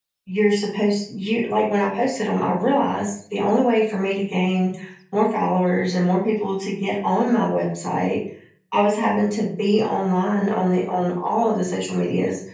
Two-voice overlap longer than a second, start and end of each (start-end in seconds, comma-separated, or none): none